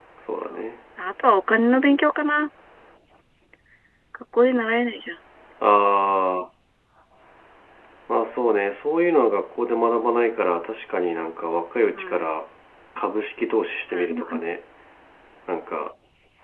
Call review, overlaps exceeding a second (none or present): none